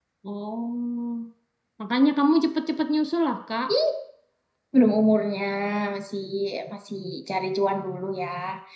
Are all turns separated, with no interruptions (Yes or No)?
Yes